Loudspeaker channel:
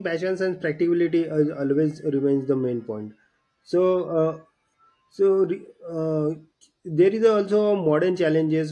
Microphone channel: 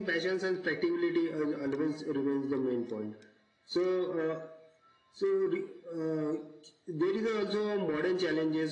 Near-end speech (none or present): none